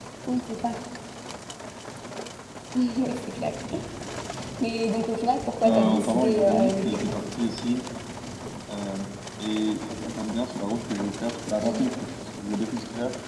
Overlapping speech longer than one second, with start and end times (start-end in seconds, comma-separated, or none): 5.6-7.1